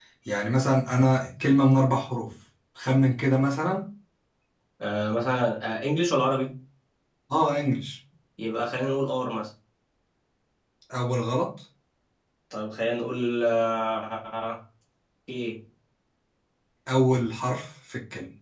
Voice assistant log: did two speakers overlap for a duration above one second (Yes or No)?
No